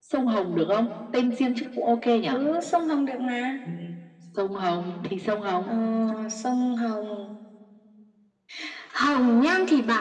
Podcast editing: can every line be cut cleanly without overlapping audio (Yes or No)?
Yes